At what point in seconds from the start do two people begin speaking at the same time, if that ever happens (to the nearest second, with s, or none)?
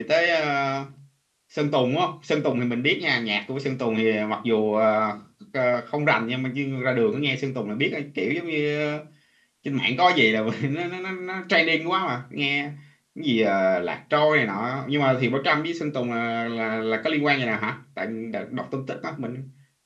none